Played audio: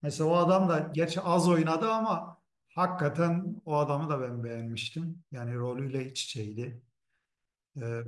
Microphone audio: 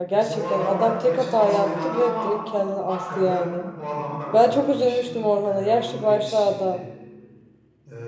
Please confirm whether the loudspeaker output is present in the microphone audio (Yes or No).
Yes